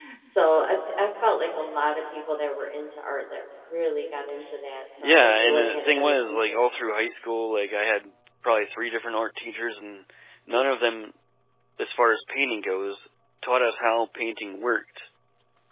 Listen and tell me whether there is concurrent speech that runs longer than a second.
Yes, from 5.0 s

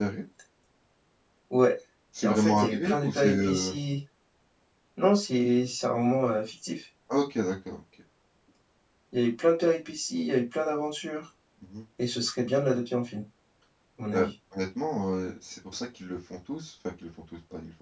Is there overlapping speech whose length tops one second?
Yes, from 2.2 s

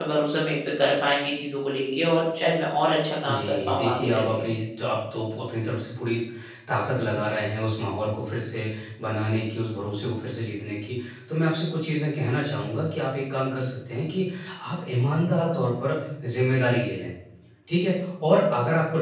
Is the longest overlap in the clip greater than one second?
Yes, from 3.2 s

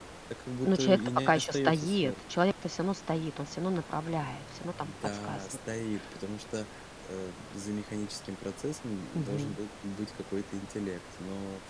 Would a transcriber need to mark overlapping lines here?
Yes, from 0.6 s

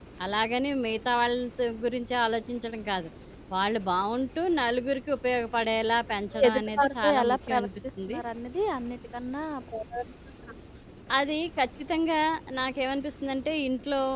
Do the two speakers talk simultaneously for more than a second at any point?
Yes, from 6.3 s

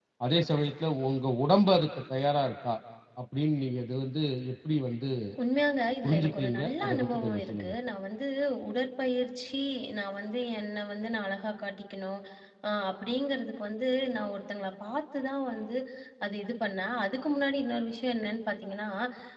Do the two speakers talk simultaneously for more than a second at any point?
Yes, from 6.0 s

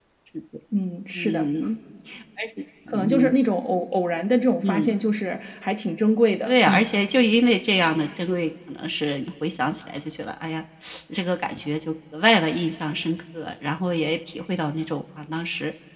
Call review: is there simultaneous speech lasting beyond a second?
No

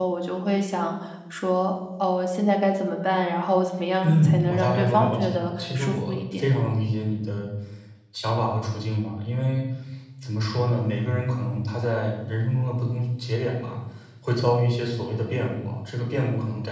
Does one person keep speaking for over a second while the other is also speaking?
Yes, from 4.0 s

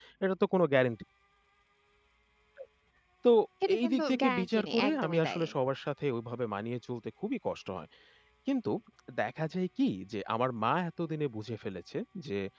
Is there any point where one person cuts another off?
Yes, from 3.8 s

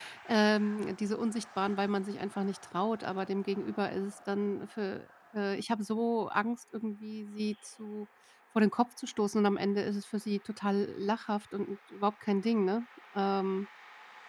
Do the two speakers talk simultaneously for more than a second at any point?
No

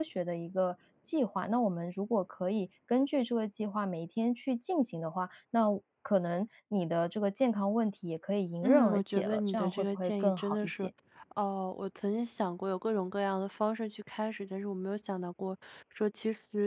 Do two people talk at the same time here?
Yes, from 8.6 s

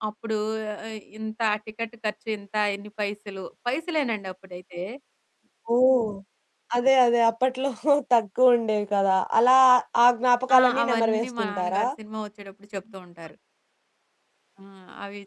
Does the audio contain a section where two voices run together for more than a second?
Yes, from 10.6 s

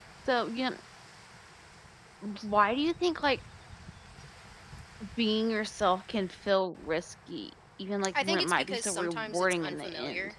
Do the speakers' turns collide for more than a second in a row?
Yes, from 8.1 s

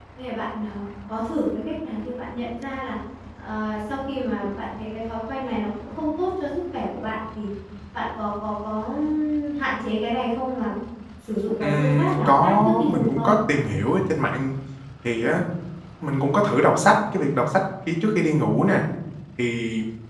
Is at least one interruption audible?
Yes, from 11.6 s

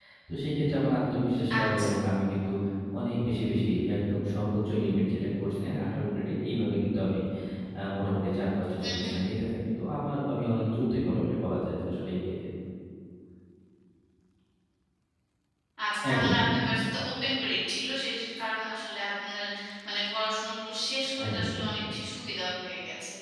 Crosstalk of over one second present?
No

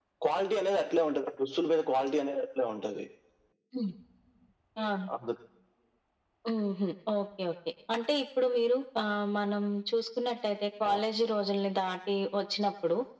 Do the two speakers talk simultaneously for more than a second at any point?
No

